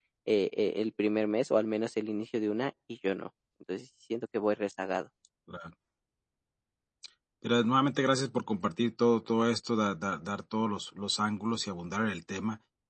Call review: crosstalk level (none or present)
none